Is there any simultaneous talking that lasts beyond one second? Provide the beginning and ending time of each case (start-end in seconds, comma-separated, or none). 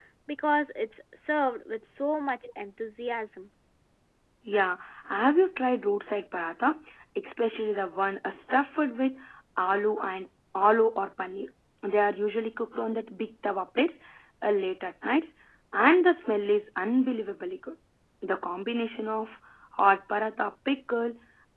none